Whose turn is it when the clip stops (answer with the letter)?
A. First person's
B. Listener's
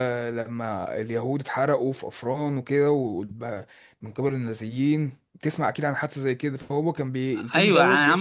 B